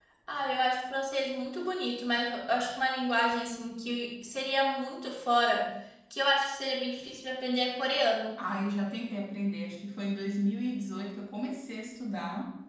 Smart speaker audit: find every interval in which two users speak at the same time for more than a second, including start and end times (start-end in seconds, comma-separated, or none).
none